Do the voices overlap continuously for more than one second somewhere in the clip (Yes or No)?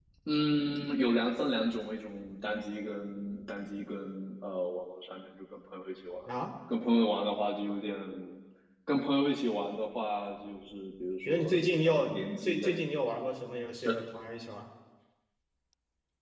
Yes